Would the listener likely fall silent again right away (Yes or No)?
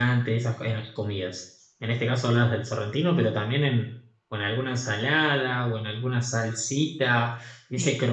Yes